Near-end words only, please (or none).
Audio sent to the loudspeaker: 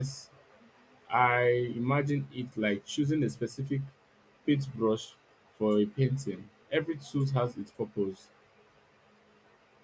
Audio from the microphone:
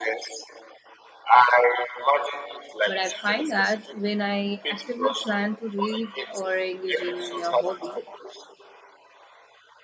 But I find that when I actively plan to read or engage in a hobby,